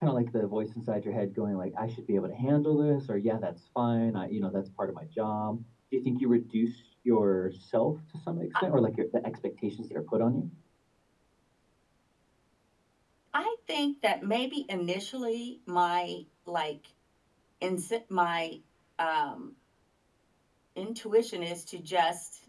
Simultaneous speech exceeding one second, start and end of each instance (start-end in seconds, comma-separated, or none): none